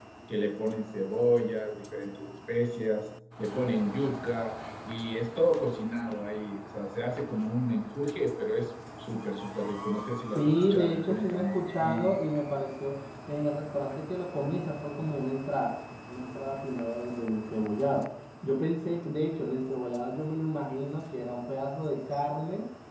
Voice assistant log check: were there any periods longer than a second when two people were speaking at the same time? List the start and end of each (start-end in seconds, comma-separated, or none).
10.2-12.2